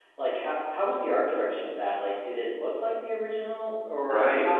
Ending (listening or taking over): taking over